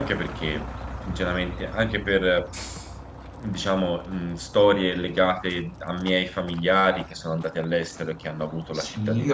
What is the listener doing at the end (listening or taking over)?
taking over